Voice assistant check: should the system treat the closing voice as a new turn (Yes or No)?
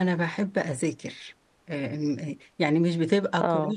No